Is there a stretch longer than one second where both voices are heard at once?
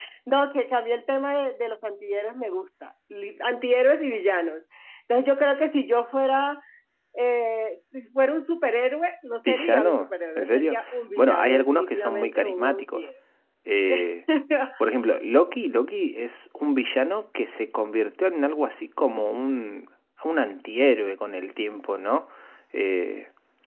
Yes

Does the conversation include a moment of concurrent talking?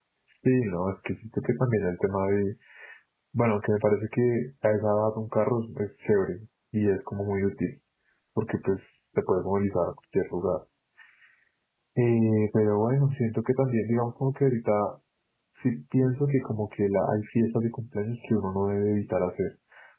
No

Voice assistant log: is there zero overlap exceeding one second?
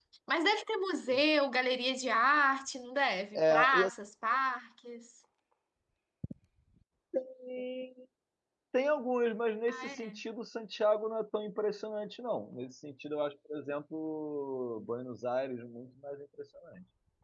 Yes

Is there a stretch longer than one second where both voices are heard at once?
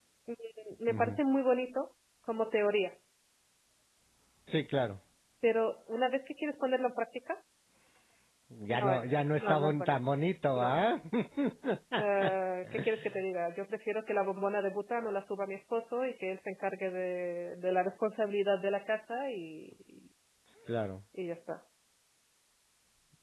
Yes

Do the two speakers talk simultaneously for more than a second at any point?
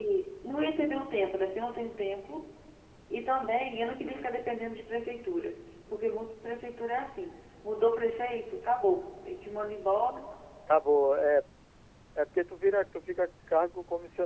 No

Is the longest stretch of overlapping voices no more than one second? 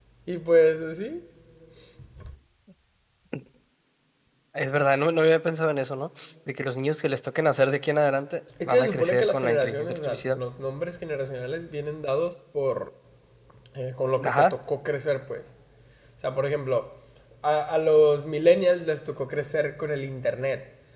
No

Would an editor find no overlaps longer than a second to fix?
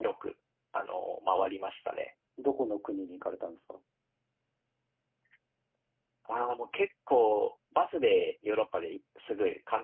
Yes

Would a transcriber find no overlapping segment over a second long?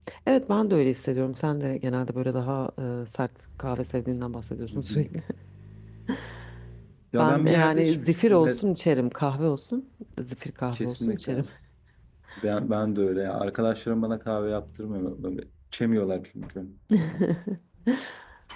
No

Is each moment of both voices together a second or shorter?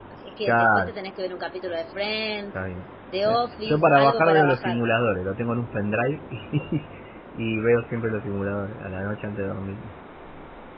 No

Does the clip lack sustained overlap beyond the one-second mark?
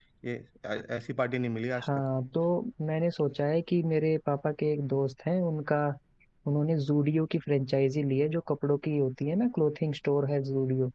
Yes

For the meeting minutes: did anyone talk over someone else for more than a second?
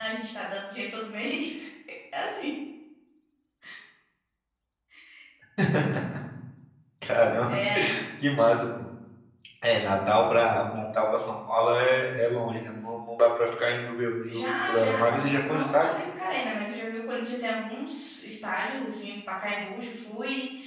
Yes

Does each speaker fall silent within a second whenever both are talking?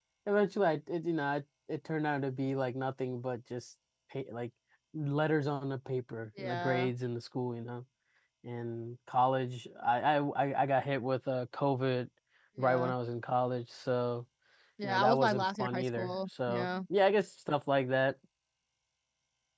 No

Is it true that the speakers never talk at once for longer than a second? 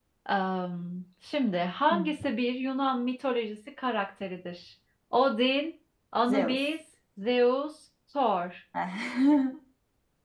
Yes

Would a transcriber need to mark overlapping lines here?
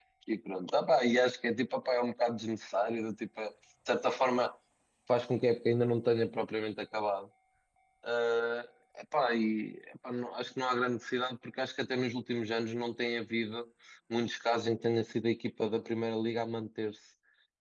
No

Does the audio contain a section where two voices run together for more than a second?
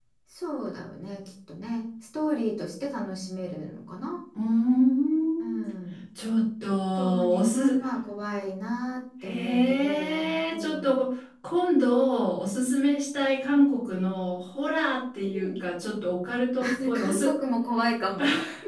Yes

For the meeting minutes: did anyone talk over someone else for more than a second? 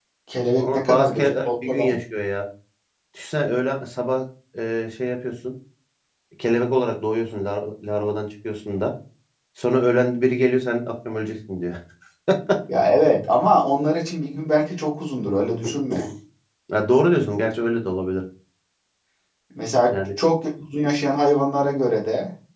Yes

